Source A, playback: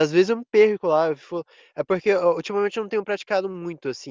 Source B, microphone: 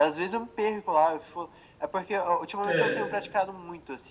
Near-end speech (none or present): present